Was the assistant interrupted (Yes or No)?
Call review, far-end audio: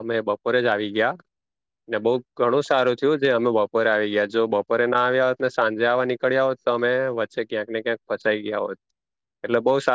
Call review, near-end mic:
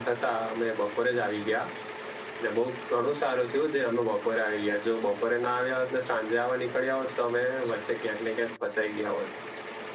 No